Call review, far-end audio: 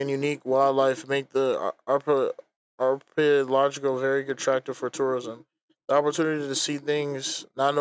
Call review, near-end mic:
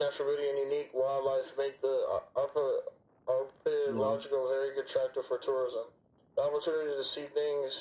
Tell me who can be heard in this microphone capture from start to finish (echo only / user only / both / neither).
both